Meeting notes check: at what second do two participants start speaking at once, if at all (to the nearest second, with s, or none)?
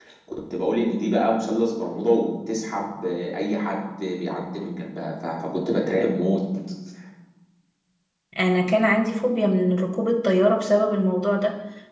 none